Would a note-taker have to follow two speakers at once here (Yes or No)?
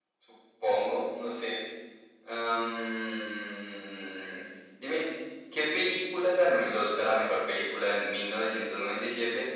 No